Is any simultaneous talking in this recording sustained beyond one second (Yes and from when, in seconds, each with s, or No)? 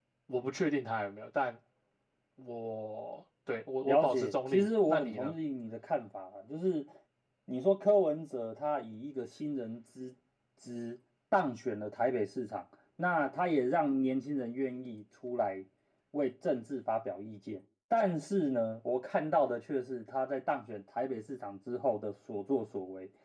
Yes, from 3.8 s